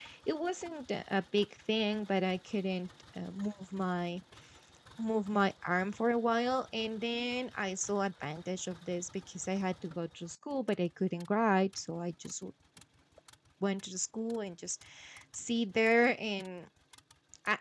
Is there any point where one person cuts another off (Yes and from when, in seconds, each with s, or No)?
No